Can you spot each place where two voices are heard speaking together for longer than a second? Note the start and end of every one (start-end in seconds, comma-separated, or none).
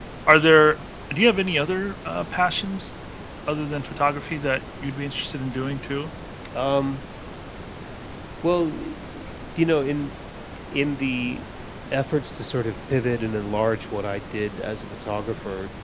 none